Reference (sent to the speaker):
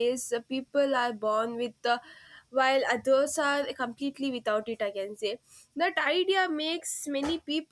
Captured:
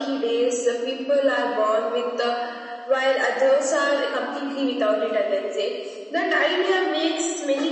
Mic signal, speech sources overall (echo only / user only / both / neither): echo only